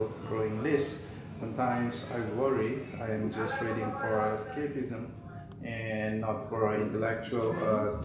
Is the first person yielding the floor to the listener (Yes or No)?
Yes